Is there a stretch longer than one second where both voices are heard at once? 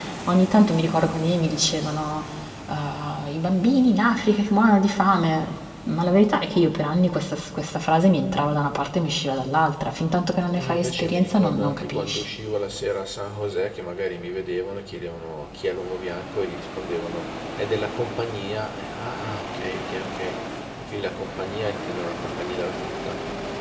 Yes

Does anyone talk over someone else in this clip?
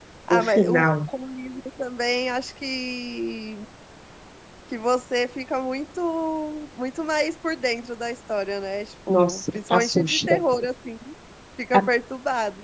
Yes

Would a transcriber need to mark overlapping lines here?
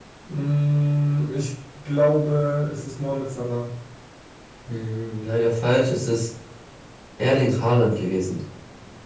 No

